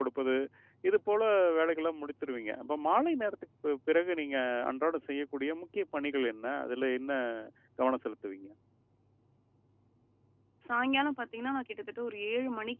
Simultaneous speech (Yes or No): No